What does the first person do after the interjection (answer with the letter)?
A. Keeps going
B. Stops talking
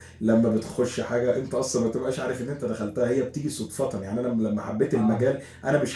A